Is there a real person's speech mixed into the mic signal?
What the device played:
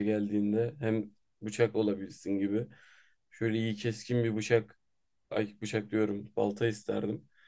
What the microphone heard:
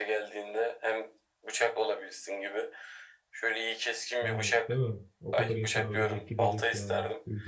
Yes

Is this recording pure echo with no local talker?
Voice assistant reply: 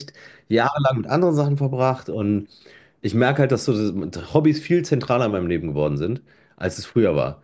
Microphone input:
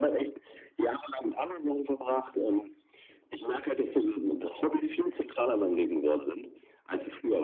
Yes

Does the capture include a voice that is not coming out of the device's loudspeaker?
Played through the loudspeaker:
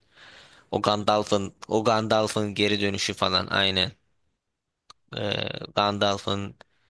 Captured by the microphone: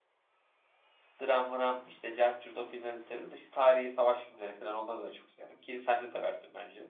Yes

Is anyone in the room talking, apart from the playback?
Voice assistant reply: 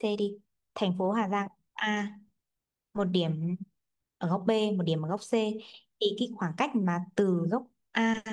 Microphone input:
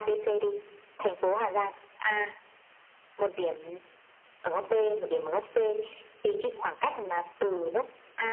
No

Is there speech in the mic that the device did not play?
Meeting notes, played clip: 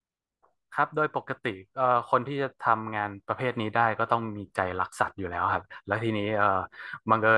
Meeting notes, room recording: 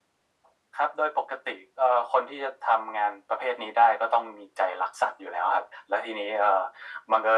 No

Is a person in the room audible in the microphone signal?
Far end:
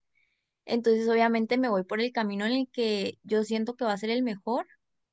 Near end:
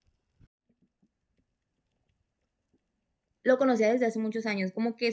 Yes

